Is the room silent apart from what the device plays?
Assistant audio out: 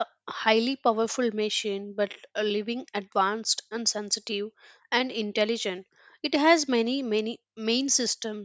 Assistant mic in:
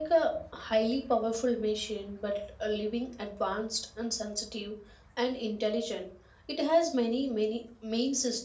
Yes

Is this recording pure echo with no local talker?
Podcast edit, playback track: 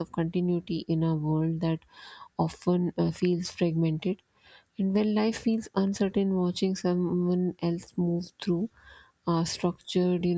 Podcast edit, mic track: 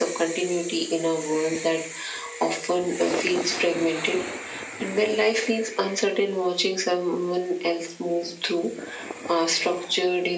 Yes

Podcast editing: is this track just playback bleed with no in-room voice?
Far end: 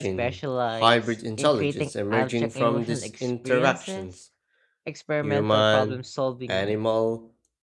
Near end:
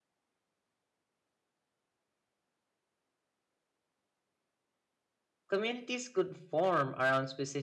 No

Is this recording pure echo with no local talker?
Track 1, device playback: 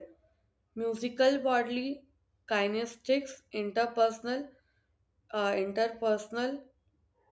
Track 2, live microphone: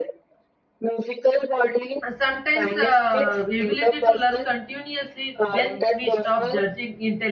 No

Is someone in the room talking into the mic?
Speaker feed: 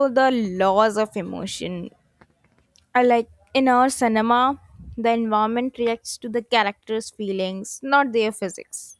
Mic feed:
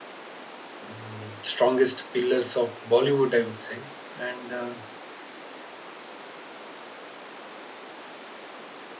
Yes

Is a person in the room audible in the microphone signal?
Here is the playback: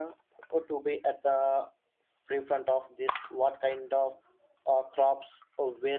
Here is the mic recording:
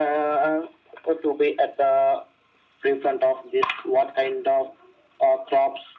No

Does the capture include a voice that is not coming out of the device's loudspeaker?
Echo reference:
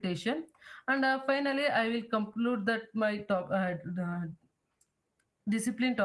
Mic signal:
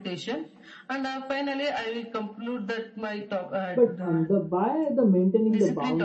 Yes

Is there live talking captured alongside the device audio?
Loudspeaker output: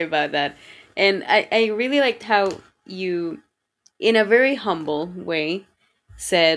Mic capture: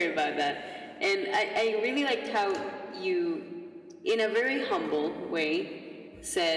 No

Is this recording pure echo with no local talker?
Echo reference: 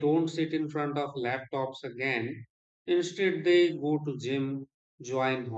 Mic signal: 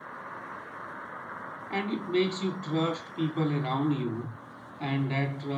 No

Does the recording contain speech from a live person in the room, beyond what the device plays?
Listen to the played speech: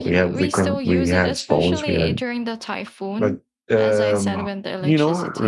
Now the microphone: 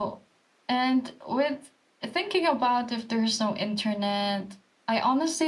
Yes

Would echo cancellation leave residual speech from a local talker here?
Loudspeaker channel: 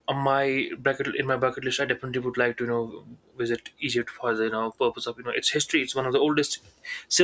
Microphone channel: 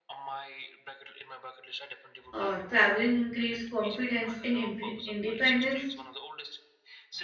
Yes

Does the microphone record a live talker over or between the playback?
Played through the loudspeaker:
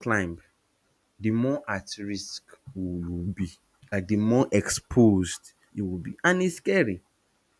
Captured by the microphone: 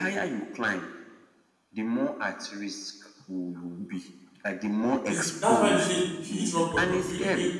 Yes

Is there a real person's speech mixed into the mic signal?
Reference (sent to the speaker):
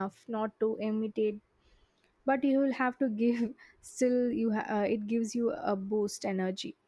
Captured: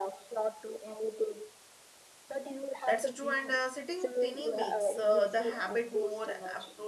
Yes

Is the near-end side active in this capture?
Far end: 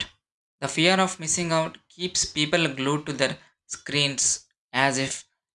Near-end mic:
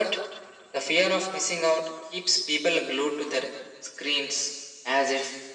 No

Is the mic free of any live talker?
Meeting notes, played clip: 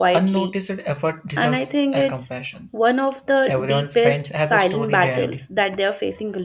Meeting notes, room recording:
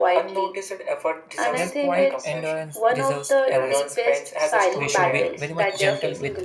No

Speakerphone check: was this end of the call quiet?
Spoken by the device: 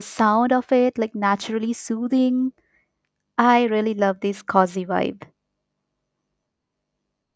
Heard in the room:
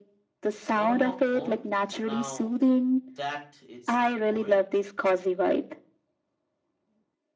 No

